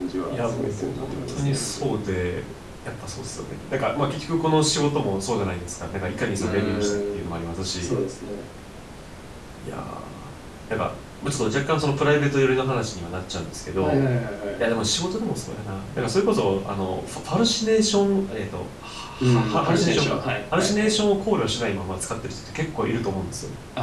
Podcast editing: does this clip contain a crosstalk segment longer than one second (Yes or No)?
Yes